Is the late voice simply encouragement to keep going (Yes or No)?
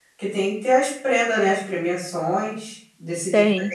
Yes